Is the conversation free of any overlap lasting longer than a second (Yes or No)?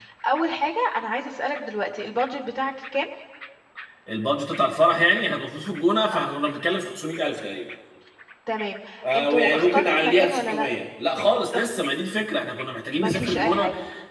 No